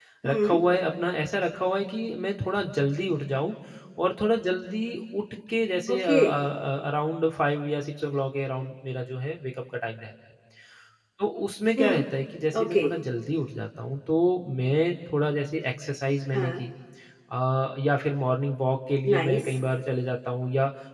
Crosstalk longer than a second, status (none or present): none